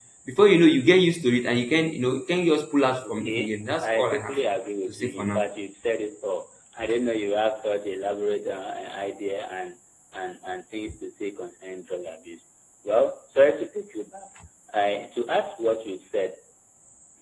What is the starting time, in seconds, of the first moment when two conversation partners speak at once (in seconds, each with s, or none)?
3.0 s